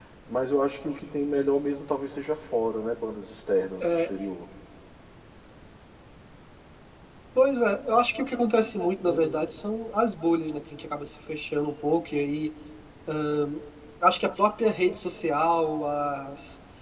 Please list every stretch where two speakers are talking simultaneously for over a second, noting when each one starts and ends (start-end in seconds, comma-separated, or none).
none